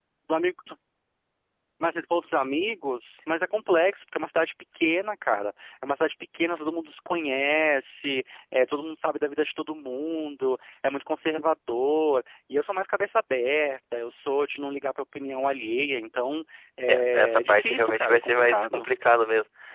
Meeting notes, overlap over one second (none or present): present